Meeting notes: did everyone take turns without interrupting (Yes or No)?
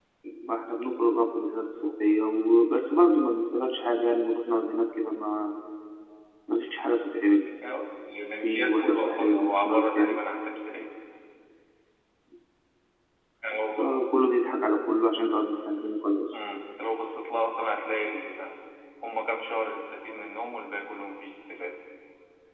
No